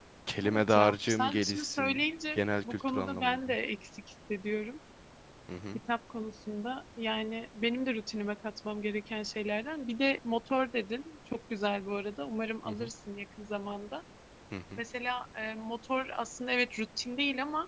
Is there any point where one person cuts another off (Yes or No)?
Yes